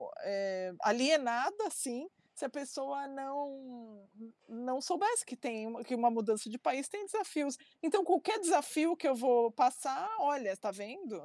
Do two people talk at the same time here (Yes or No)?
No